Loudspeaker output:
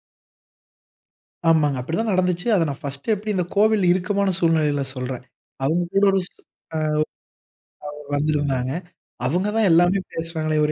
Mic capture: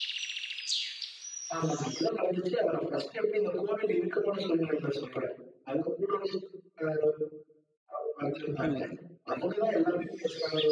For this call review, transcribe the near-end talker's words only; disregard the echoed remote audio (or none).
இ